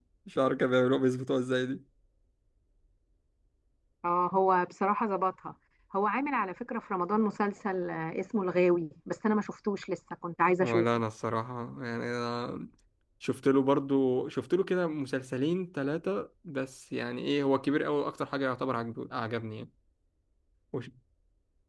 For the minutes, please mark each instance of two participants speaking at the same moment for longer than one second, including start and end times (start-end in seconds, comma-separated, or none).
none